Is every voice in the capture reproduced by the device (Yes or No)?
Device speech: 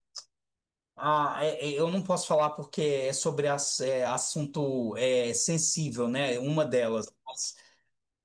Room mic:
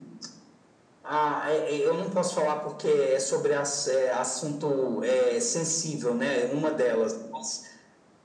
Yes